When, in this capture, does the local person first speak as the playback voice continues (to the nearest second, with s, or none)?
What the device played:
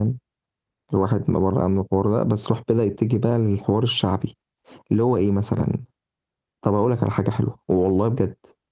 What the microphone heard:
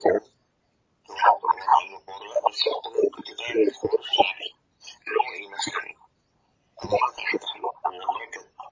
none